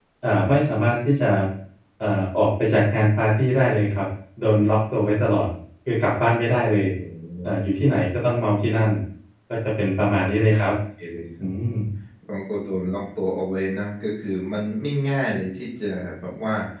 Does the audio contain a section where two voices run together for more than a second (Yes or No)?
No